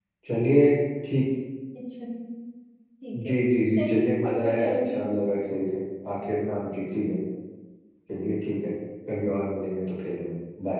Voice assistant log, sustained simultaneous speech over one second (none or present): present